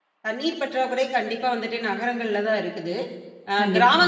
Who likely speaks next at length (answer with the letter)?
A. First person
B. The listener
A